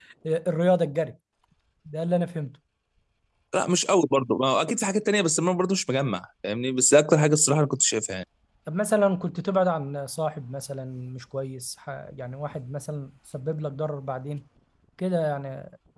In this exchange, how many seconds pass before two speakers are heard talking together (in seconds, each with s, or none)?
none